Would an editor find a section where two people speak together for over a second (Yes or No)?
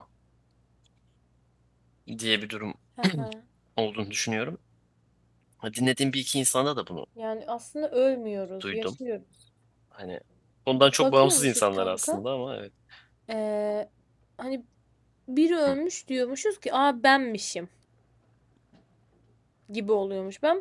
Yes